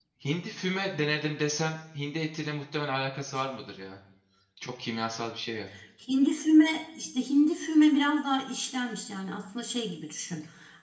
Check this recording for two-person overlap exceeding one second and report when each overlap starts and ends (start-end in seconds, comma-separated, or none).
none